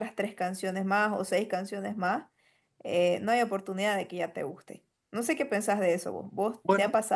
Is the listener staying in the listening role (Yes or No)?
Yes